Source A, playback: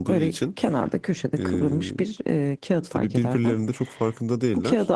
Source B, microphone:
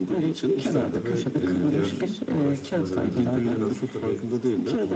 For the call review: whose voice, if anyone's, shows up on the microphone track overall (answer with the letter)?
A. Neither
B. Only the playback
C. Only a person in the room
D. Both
D